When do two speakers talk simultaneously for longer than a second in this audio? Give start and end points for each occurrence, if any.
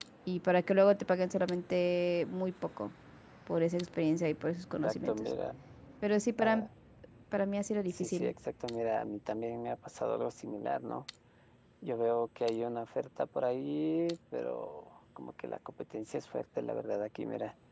none

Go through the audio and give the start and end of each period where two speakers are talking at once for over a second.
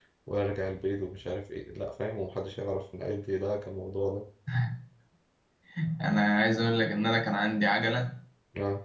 none

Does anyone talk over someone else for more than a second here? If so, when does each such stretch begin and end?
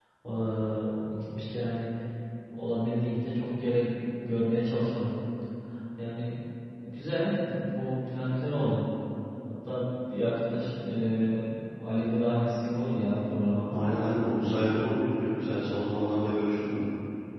none

